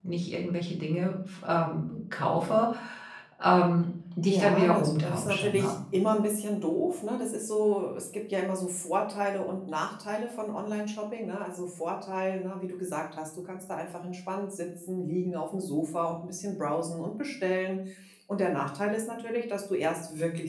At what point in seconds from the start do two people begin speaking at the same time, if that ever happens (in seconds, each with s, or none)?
4.2 s